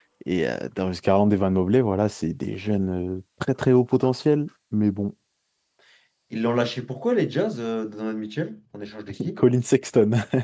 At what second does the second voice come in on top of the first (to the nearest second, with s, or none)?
none